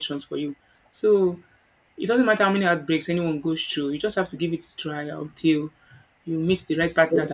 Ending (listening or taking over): taking over